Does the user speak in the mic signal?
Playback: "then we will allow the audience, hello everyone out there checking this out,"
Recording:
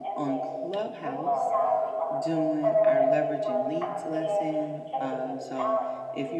Yes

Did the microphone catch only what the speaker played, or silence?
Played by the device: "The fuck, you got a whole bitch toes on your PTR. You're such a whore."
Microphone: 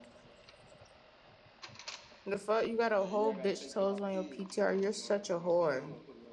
No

